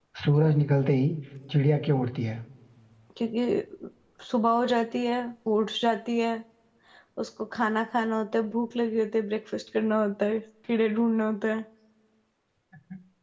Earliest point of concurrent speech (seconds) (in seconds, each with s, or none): none